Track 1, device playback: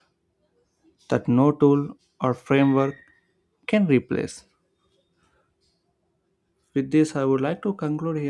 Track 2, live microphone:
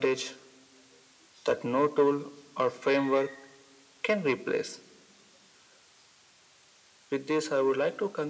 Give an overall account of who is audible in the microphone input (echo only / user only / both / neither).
echo only